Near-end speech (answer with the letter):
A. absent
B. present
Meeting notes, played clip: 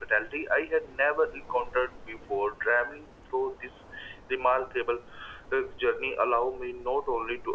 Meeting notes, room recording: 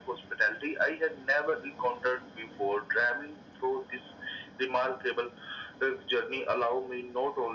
A